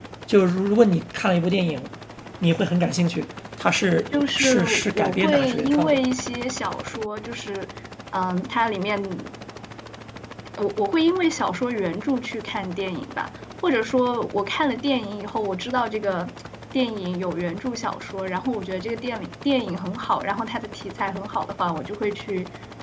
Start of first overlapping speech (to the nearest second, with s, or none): 4 s